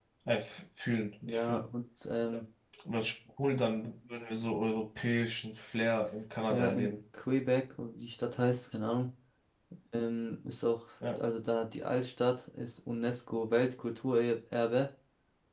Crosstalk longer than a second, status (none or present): none